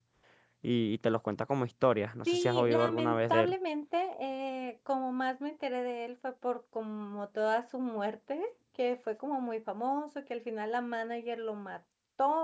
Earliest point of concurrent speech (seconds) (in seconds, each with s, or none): 2.3 s